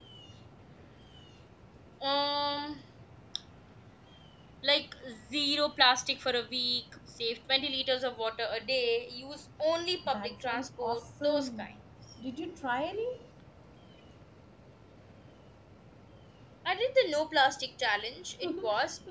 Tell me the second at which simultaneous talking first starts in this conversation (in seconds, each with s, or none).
10.1 s